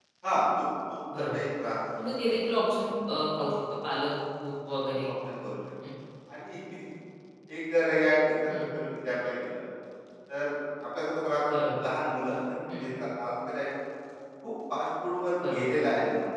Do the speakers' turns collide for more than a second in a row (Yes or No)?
No